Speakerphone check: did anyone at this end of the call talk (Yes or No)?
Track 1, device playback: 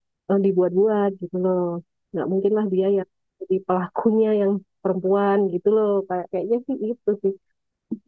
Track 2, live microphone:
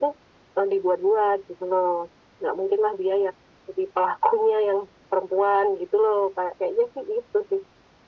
No